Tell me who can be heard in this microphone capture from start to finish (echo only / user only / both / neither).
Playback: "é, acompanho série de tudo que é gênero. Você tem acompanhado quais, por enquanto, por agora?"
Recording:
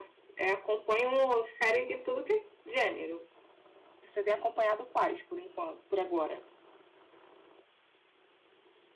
echo only